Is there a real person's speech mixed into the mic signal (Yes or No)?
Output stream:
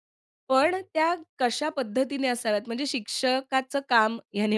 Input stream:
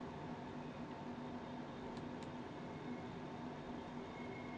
No